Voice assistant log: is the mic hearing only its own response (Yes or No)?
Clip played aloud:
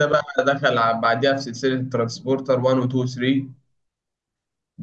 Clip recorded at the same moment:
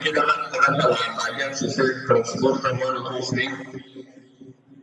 Yes